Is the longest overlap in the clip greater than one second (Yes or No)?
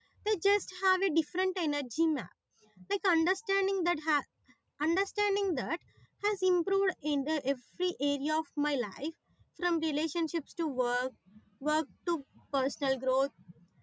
No